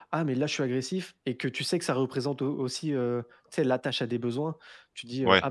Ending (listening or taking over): listening